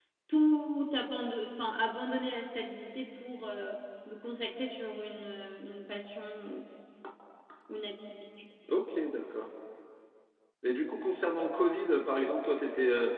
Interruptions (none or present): none